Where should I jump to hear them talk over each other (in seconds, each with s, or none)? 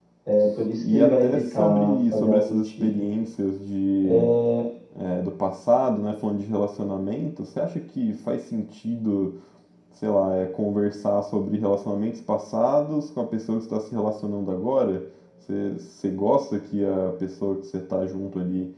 0.8 s